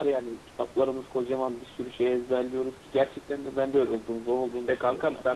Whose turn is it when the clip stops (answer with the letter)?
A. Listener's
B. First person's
A